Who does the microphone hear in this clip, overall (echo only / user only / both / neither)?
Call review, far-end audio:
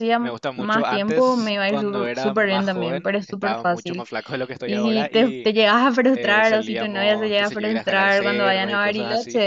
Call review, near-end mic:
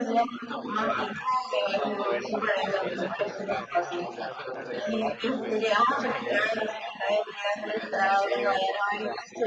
both